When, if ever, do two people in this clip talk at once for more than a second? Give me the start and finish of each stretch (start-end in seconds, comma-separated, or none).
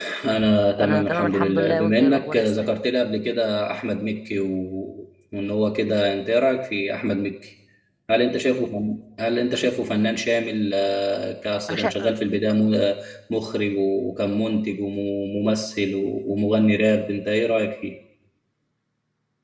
0.8-2.7